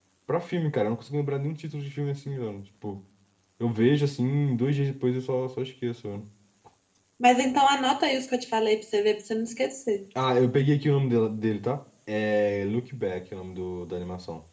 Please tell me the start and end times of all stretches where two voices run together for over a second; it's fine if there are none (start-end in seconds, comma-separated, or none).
none